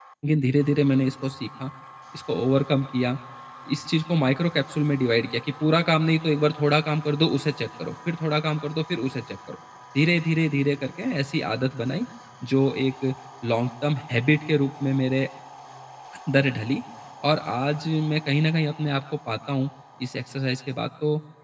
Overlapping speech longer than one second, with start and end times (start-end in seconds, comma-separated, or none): none